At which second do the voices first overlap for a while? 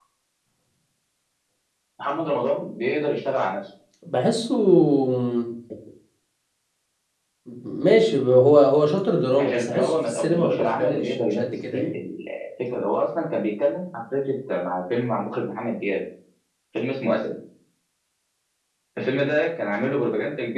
9.3 s

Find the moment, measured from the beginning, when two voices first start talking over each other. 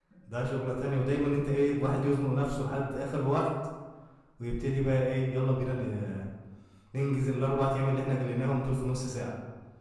none

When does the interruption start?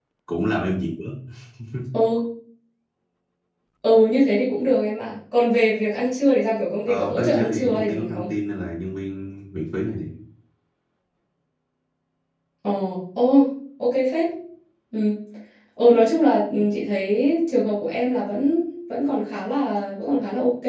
6.9 s

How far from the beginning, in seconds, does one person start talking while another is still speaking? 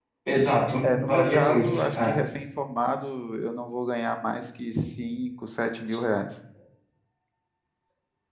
0.8 s

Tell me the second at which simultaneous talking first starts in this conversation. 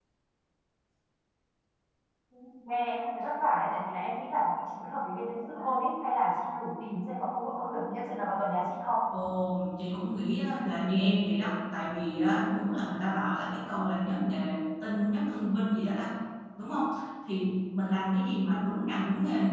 none

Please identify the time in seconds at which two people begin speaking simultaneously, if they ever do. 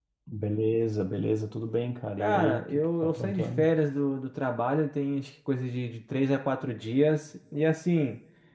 2.2 s

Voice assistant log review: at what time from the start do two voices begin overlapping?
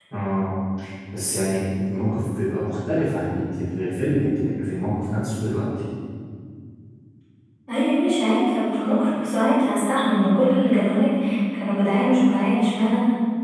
none

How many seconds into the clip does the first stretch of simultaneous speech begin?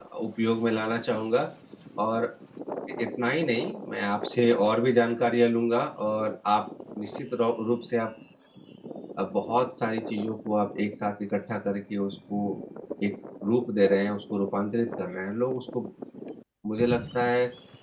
none

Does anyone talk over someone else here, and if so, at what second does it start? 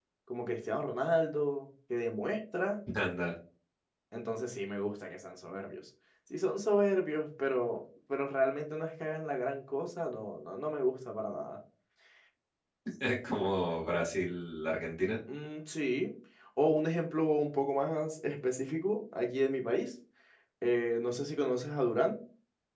none

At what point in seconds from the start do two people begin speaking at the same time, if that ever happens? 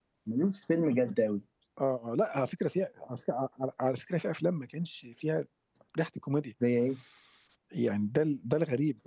none

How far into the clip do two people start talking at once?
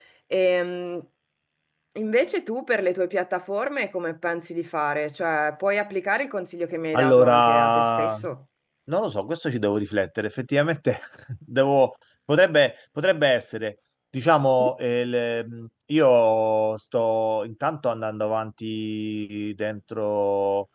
6.9 s

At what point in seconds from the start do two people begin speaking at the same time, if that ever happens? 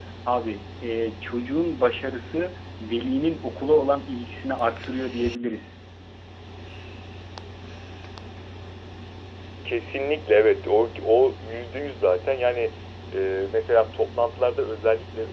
none

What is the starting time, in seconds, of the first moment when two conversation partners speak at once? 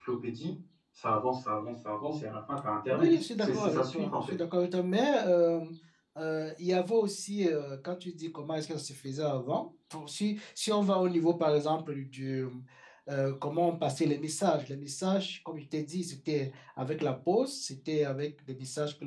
2.9 s

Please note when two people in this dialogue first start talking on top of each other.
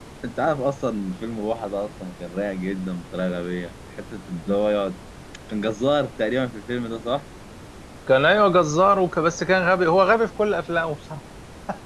none

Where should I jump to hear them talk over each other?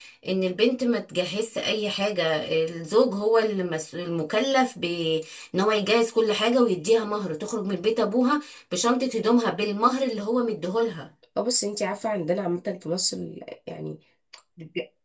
none

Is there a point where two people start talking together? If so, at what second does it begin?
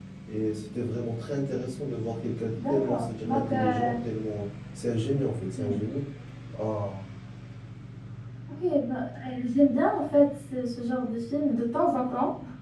2.6 s

